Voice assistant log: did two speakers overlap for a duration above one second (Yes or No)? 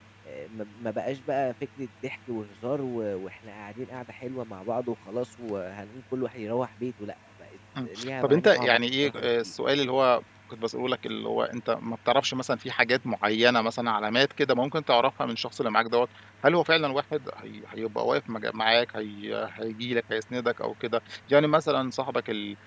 Yes